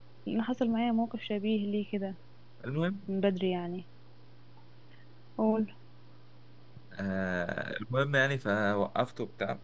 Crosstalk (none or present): none